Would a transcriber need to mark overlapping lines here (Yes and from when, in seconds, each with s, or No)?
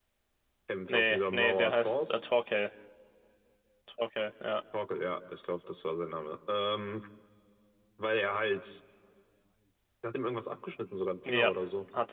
Yes, from 0.9 s